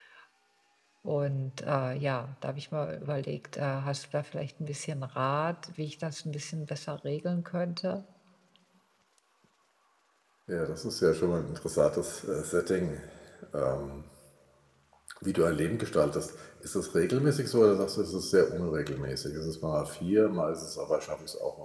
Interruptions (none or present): none